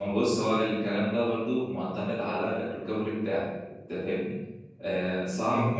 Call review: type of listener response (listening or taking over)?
listening